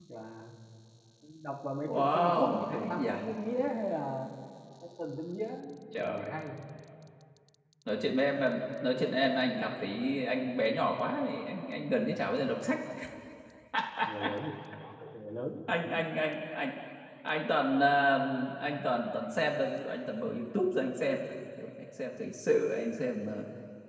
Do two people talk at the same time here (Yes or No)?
Yes